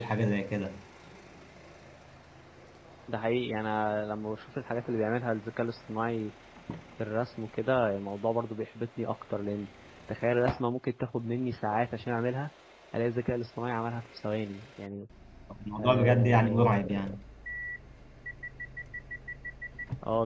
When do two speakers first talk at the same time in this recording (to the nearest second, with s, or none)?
16 s